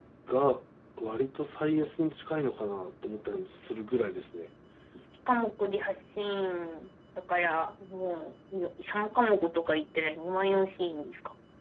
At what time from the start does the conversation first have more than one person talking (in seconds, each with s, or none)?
none